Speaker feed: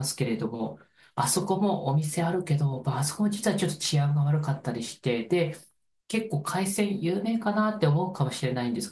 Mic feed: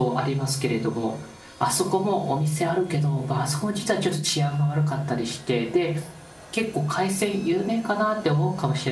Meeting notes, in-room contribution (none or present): none